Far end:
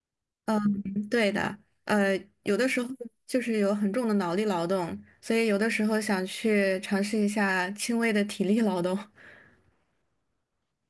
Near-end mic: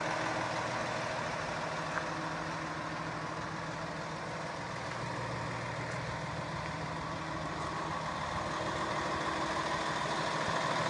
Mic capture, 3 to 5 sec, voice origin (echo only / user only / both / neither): neither